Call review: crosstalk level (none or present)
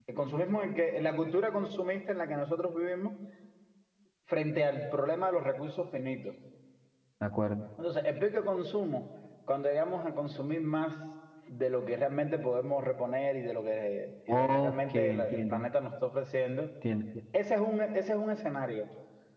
present